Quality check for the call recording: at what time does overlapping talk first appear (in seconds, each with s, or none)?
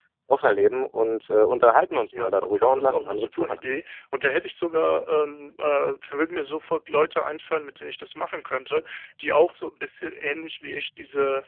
2.1 s